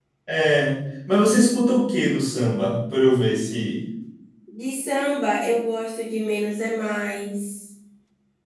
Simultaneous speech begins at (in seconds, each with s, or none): none